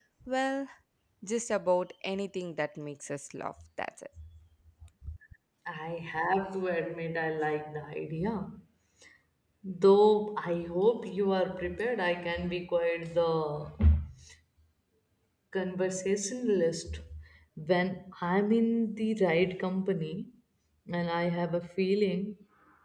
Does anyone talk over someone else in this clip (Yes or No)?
No